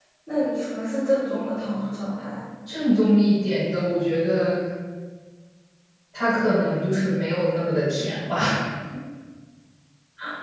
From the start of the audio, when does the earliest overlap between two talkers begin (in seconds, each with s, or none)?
none